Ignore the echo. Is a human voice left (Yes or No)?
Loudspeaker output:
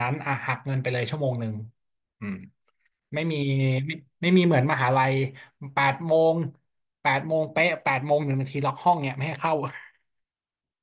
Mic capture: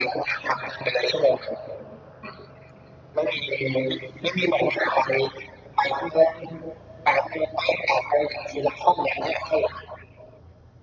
No